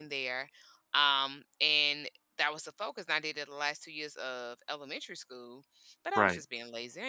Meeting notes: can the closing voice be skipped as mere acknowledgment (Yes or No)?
Yes